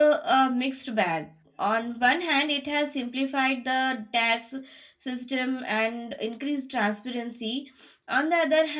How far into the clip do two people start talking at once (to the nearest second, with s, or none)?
none